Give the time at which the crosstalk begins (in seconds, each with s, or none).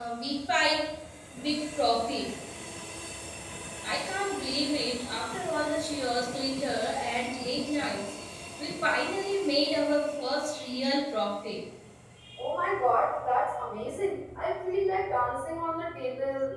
none